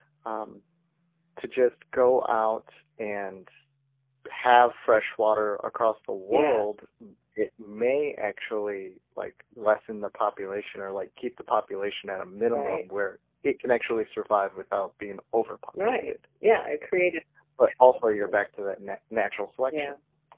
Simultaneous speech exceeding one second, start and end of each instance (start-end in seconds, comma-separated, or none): none